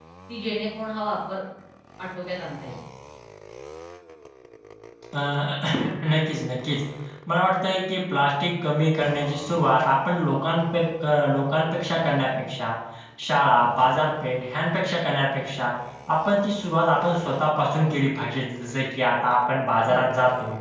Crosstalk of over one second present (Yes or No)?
No